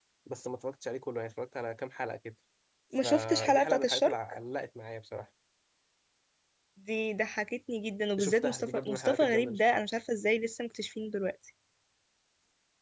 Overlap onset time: 3.0 s

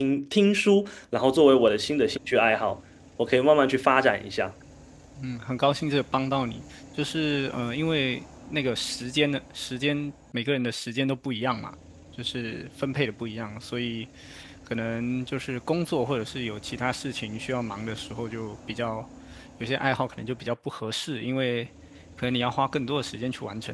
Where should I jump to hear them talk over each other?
none

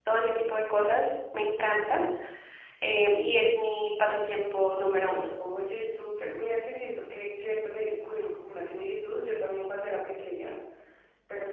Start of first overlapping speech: none

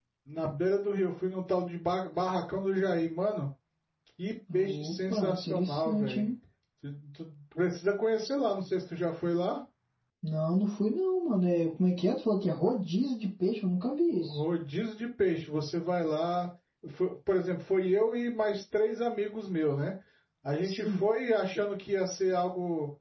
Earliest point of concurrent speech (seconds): 4.5 s

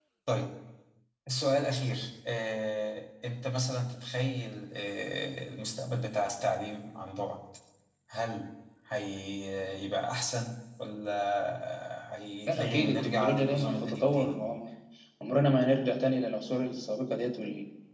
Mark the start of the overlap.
12.4 s

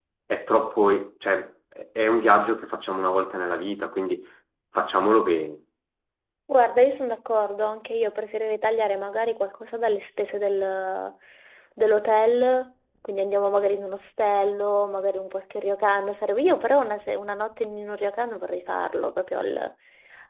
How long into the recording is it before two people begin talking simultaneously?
none

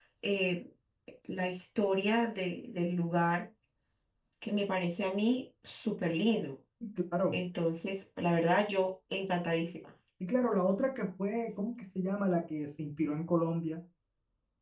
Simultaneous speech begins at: none

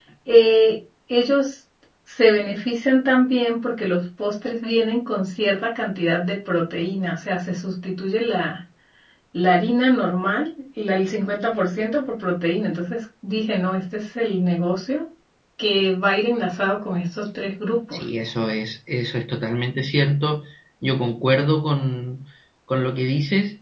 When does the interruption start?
none

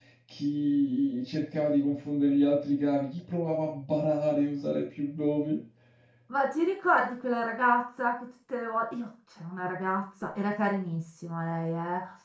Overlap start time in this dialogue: none

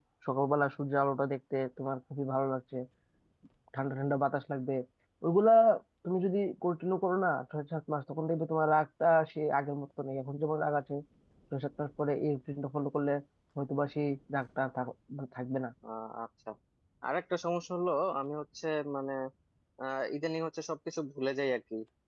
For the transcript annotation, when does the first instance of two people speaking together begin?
none

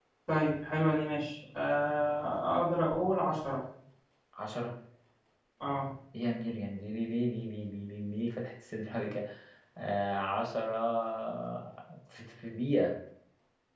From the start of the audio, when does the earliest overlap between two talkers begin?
none

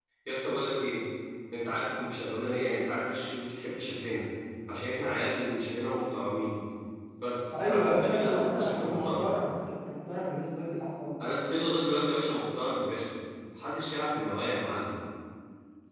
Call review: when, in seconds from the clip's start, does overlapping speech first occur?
7.6 s

